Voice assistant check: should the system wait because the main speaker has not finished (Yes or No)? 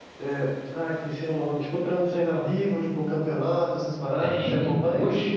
No